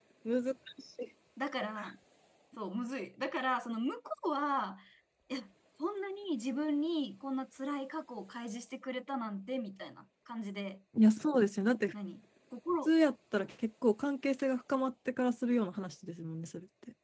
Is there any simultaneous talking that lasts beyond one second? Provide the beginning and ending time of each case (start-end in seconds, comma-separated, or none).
none